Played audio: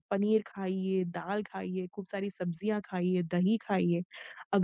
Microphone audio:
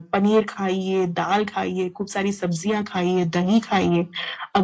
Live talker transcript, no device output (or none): none